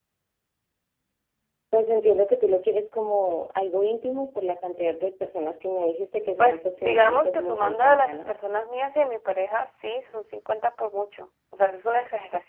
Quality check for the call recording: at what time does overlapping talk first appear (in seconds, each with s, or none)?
6.4 s